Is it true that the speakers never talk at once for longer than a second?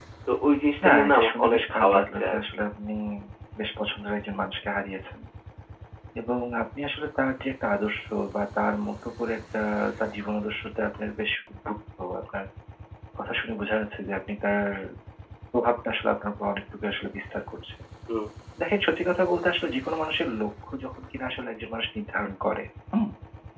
No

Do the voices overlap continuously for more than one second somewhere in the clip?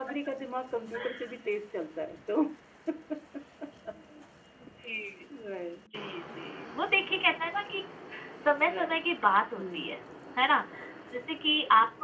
No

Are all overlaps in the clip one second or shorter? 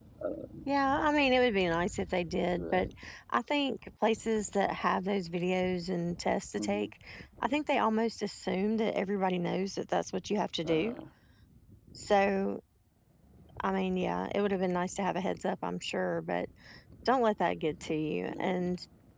Yes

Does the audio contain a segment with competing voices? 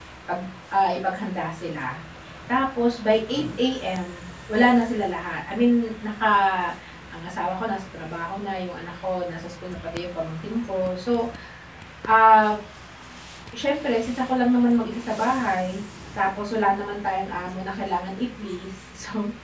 No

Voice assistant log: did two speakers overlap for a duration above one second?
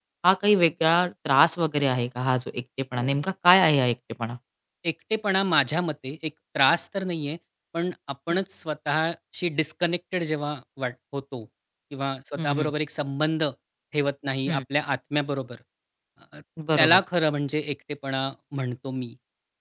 No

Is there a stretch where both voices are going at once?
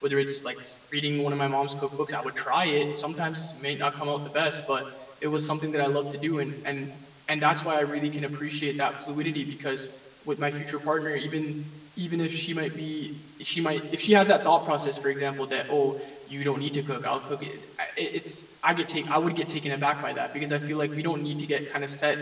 No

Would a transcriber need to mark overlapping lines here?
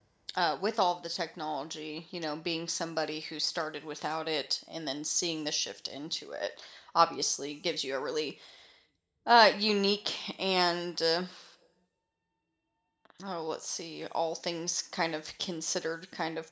No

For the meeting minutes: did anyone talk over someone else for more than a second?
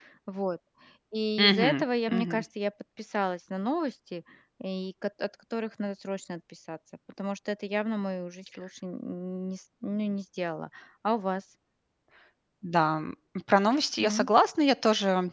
No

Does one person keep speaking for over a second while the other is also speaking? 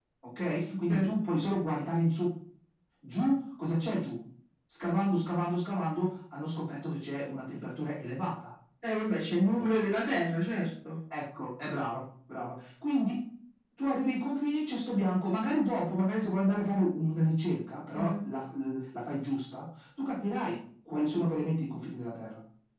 No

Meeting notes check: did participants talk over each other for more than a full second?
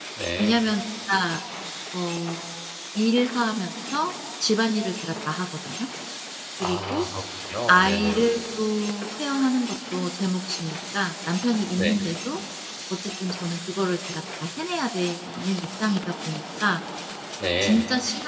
No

